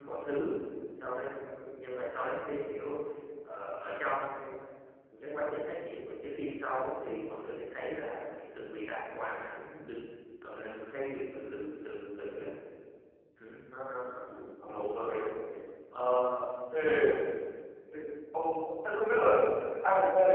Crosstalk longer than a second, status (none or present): none